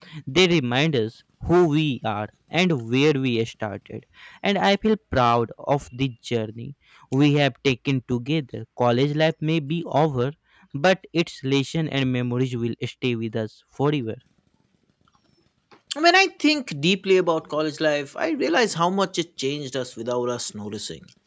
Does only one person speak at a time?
Yes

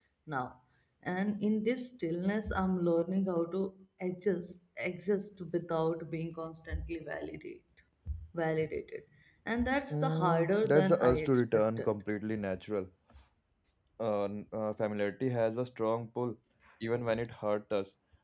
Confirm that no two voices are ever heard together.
No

